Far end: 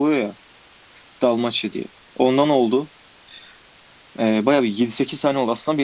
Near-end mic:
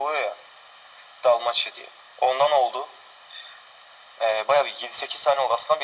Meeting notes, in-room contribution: none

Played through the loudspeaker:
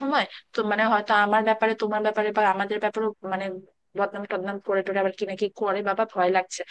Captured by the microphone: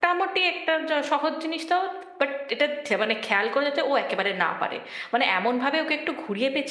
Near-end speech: present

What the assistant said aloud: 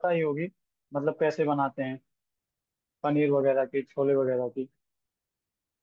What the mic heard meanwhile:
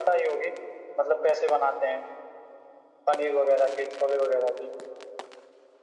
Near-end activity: none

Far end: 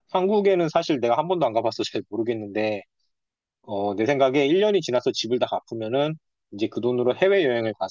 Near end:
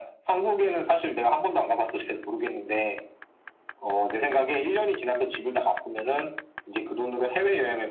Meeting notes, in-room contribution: none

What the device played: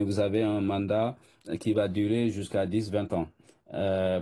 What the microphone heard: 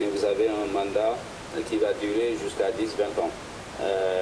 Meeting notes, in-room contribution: none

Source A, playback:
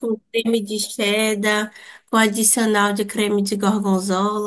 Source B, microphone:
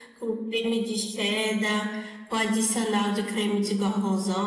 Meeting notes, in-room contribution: none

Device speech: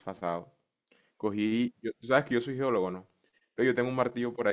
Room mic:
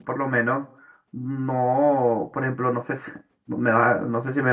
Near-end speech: present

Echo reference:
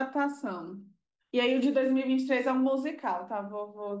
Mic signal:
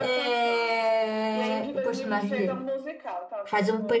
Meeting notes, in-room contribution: present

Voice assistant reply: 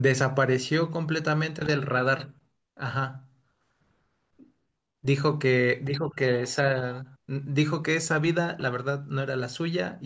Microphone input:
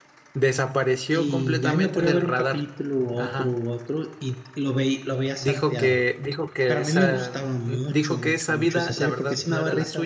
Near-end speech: present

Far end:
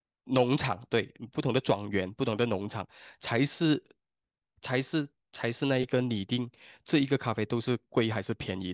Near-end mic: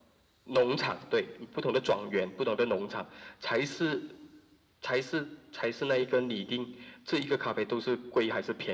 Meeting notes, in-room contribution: none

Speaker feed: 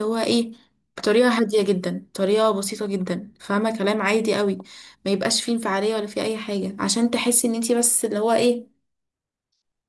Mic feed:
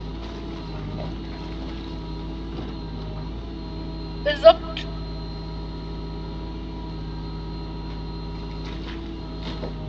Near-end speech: present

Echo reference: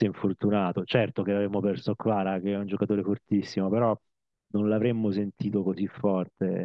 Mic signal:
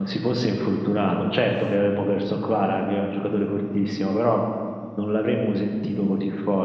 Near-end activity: none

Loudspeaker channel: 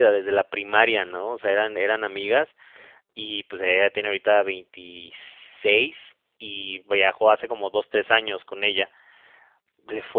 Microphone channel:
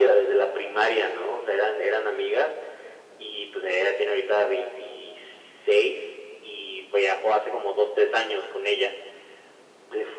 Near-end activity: none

